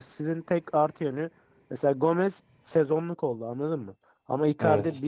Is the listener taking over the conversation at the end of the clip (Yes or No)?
No